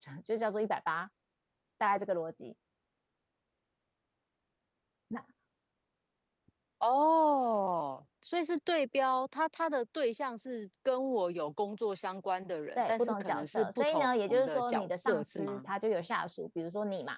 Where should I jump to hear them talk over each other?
12.8 s

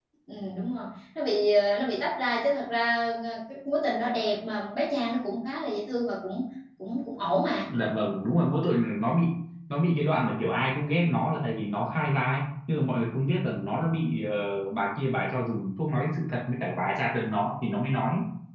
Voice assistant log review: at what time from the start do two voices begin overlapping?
none

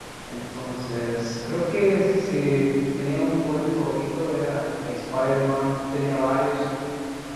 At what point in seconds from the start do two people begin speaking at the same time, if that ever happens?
none

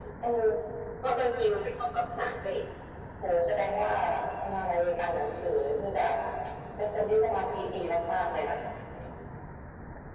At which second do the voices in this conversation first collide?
none

